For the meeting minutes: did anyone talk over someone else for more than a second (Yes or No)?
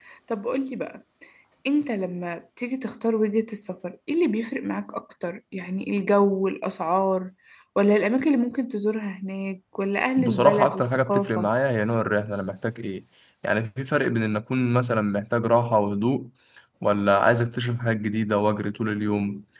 Yes